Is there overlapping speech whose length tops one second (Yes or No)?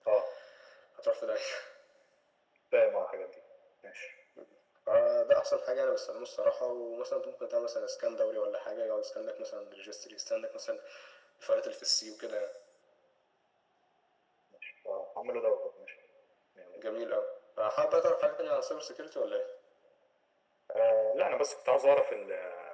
No